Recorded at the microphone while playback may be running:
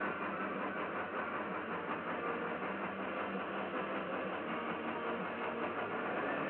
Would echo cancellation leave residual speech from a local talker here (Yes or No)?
No